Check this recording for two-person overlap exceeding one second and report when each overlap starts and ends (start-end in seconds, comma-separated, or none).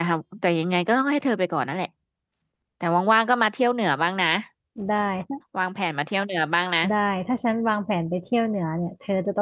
none